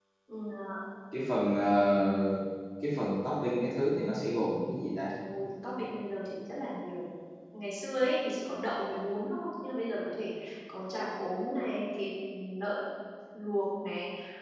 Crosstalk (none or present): none